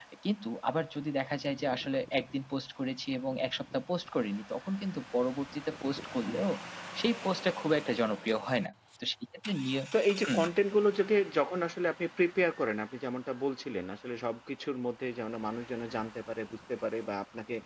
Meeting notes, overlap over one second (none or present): none